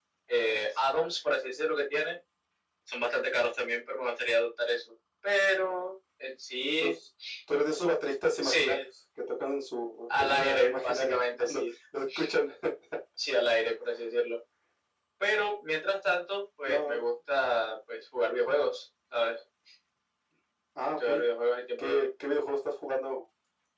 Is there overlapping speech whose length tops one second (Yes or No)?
Yes